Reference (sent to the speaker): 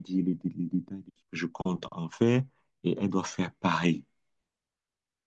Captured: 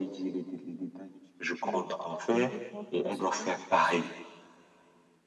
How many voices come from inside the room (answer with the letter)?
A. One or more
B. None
A